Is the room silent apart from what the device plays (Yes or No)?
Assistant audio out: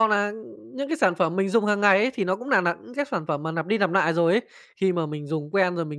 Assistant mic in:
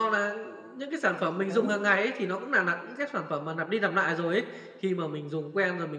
No